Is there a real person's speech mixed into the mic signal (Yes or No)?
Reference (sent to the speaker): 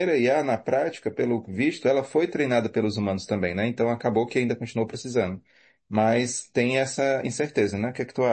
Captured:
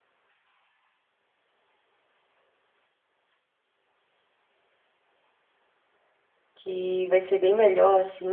Yes